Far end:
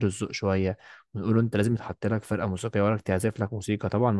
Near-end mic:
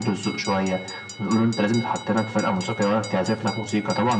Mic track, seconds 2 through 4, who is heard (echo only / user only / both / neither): echo only